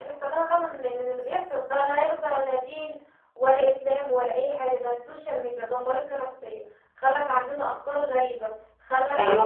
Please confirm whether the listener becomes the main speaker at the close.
No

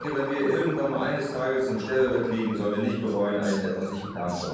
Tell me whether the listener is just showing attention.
No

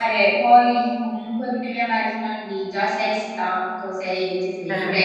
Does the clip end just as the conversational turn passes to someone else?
No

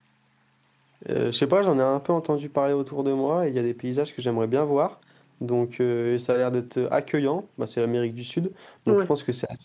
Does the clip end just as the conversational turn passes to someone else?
No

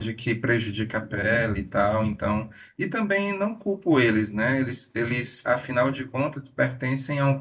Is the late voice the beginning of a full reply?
No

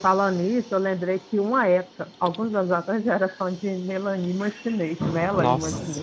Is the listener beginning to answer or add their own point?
Yes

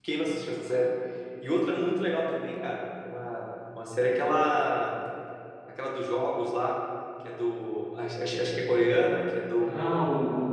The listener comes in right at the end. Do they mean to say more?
Yes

